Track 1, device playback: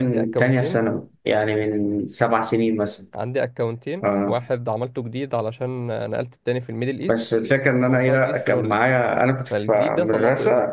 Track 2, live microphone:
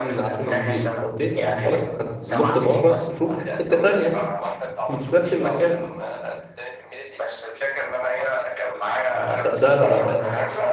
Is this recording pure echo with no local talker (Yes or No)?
No